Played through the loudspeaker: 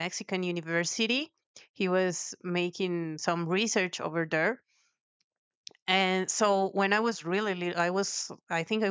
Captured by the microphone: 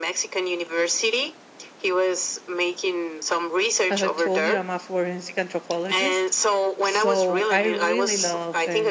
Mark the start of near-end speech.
4 s

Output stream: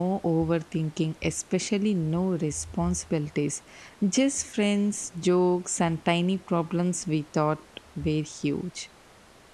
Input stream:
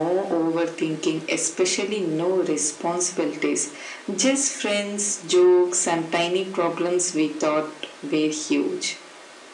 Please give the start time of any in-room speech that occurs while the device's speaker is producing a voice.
none

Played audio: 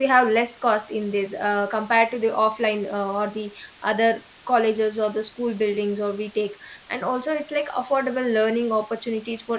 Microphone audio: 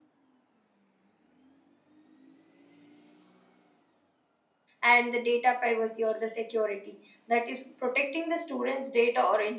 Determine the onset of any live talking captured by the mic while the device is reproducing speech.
5 s

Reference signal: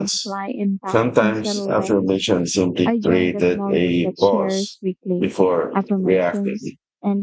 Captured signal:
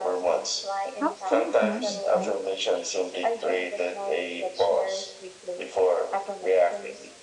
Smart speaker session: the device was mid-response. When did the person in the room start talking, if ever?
1 s

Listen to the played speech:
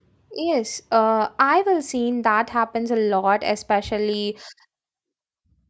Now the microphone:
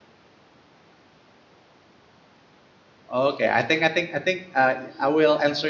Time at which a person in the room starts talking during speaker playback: 3 s

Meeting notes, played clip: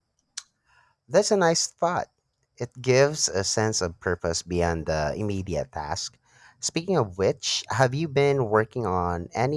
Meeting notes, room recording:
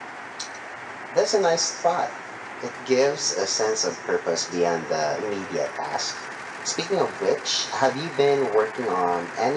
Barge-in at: none

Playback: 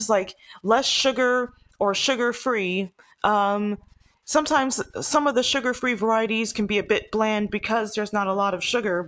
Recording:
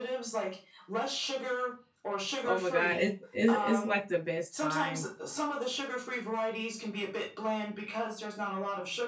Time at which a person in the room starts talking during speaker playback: 2 s

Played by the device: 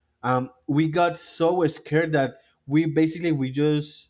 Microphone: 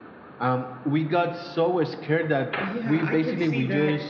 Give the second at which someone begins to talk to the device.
3 s

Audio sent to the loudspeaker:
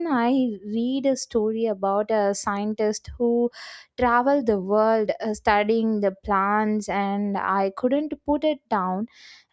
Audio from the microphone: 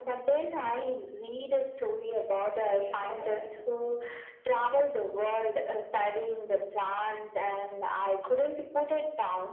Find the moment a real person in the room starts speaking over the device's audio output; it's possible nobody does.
3 s

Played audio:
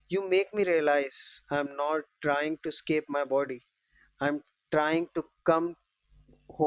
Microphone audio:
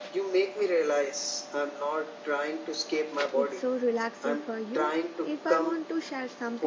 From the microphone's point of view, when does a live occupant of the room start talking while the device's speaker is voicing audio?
3 s

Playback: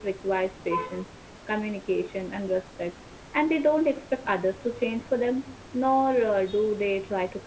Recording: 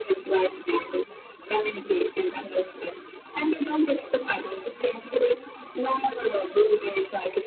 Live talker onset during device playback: none

